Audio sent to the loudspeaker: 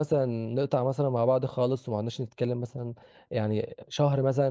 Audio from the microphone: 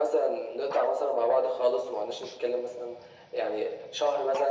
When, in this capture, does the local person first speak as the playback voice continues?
none

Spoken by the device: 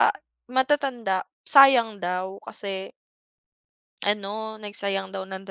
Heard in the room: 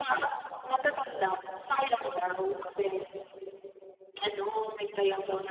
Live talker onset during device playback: none

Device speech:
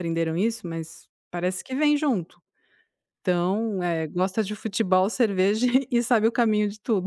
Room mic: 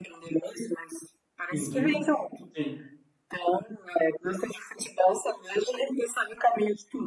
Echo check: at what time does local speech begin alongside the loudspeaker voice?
1.5 s

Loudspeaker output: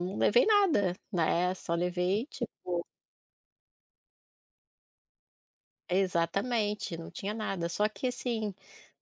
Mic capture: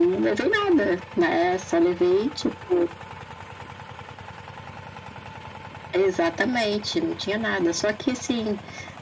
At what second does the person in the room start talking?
none

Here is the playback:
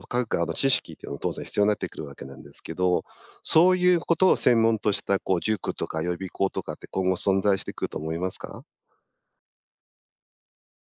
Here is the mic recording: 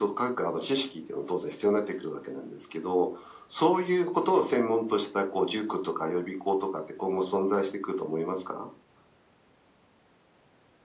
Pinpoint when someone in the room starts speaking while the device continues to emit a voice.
none

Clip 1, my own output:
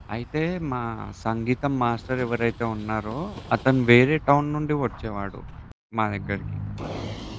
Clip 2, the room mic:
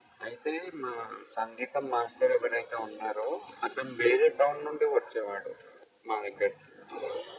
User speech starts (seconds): none

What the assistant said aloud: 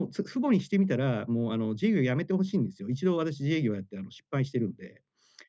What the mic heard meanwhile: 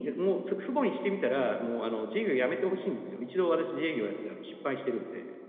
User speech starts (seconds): none

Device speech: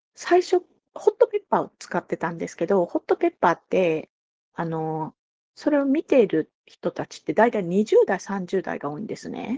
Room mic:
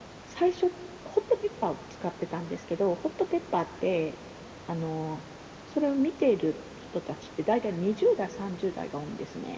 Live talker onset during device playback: none

